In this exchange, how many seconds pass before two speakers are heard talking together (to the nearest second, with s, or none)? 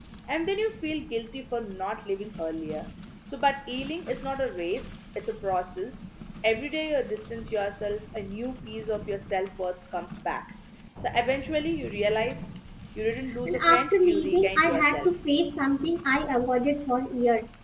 13 s